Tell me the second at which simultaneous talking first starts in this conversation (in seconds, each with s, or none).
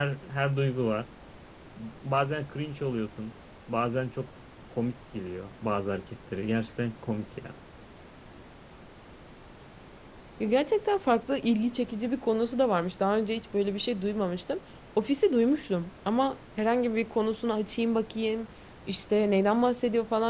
none